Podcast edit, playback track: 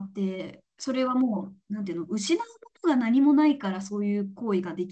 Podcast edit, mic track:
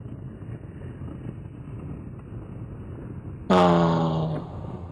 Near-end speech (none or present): present